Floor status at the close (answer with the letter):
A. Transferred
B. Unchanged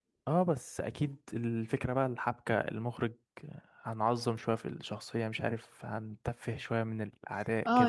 A